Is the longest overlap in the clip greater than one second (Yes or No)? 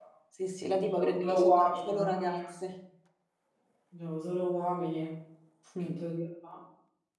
Yes